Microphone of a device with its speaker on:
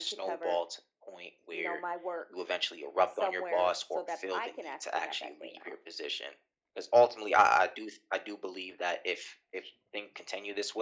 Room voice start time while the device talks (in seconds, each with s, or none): none